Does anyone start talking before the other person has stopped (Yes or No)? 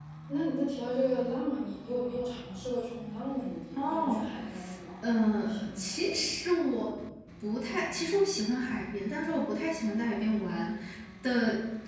Yes